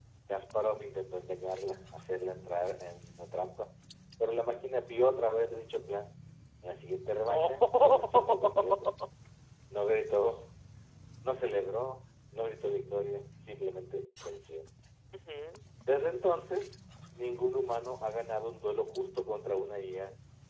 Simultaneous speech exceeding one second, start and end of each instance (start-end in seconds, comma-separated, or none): 7.3-8.9